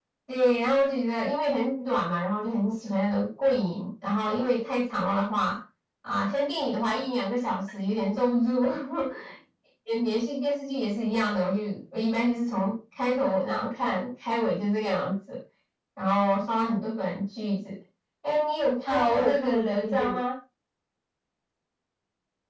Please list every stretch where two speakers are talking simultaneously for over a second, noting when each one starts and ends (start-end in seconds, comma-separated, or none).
18.8-20.2